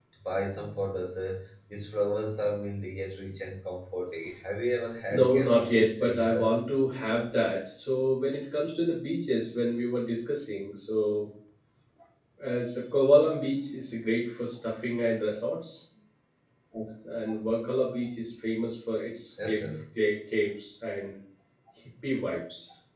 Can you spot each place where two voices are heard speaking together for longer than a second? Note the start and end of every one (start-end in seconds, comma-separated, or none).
5.1-6.5